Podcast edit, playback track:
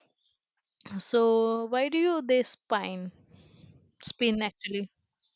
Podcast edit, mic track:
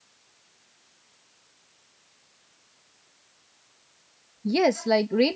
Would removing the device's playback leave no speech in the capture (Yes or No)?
No